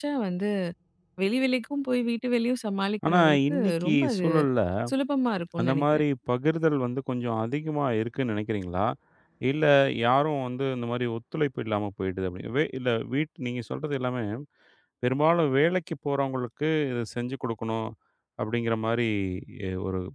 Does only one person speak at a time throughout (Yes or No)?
No